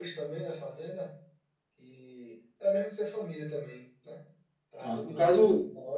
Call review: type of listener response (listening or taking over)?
taking over